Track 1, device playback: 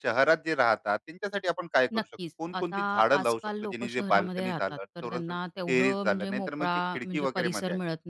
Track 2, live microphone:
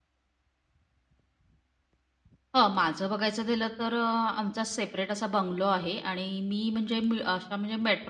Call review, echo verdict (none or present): none